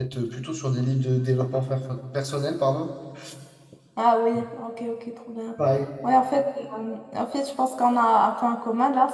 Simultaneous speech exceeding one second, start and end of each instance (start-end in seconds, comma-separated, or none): none